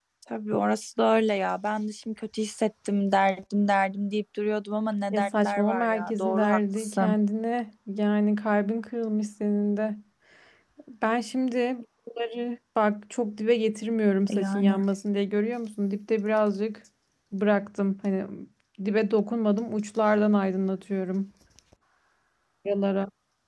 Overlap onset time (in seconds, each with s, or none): 5.1 s